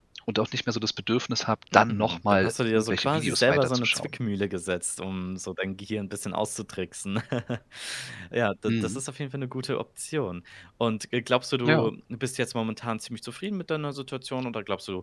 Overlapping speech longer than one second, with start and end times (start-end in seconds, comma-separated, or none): 1.7-4.2